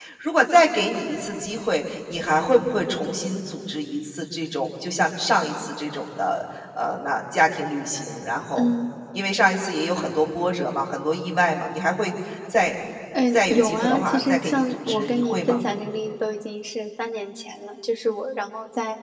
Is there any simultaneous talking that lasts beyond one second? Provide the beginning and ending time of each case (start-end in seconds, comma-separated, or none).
13.3-15.6